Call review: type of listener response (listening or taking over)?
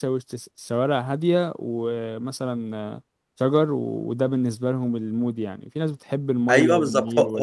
taking over